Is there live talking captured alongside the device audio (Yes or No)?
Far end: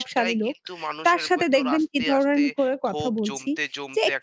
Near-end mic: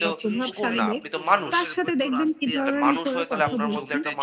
Yes